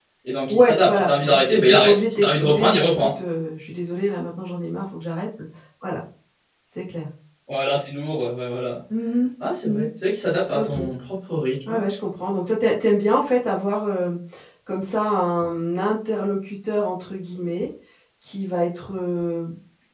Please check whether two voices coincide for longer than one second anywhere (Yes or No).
Yes